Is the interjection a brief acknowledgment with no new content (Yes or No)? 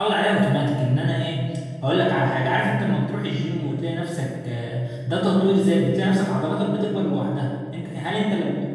Yes